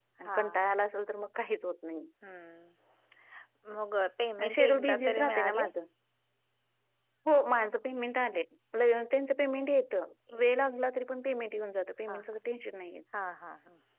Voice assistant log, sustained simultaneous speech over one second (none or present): present